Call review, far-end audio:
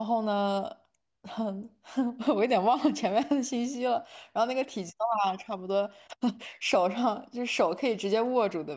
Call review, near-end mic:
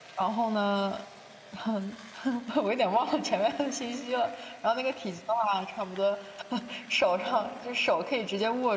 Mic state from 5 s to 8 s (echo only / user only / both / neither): echo only